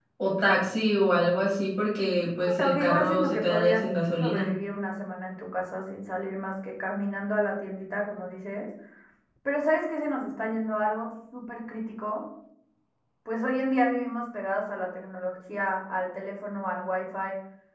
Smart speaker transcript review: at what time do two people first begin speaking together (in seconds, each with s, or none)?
2.6 s